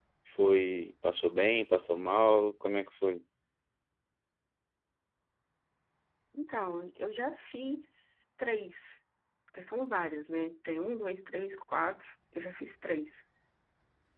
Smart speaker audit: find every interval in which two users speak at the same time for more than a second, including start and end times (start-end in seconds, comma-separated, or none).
none